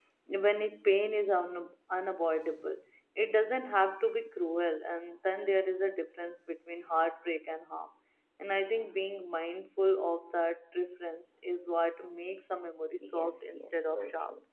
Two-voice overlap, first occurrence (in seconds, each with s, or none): 13.0 s